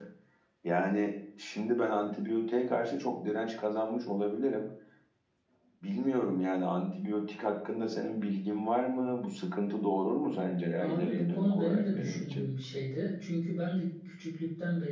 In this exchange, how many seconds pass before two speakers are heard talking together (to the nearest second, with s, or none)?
11 s